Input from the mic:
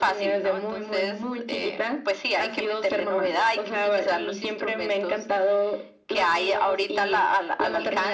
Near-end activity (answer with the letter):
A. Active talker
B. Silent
B